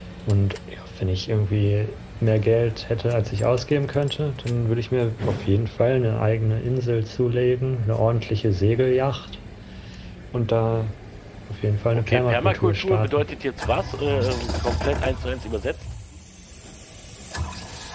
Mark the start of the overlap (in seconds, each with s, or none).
11.9 s